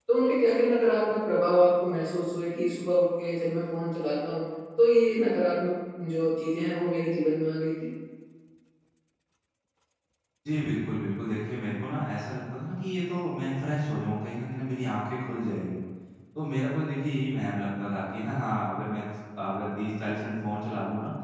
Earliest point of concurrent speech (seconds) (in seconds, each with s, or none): none